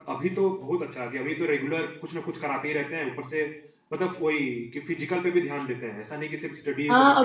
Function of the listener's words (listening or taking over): taking over